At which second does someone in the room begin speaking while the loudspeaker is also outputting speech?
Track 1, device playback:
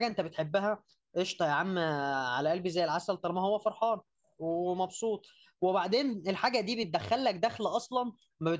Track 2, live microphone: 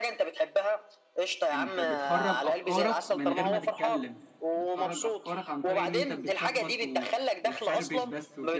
1.5 s

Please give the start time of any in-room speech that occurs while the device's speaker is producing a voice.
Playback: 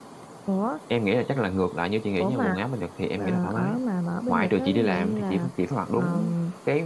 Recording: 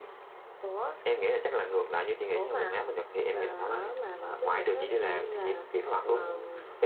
none

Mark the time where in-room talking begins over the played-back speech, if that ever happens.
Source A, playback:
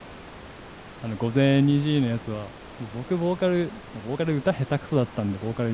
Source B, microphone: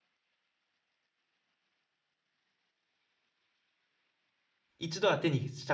4.8 s

